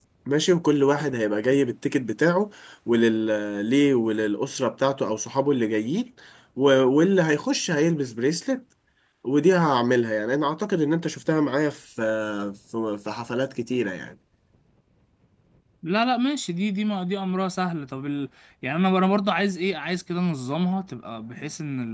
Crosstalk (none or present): none